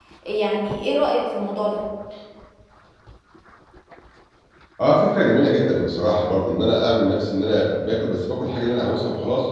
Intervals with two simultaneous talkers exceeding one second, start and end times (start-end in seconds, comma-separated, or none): none